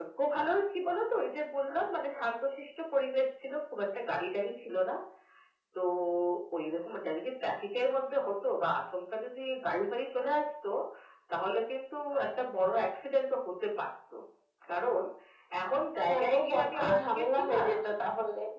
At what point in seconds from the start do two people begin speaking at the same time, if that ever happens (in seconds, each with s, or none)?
16.1 s